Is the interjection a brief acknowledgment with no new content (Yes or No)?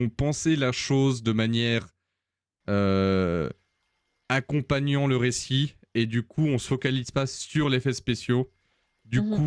Yes